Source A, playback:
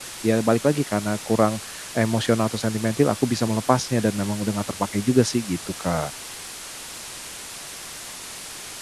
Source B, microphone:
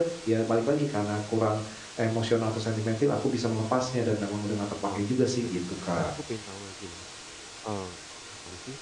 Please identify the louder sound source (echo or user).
echo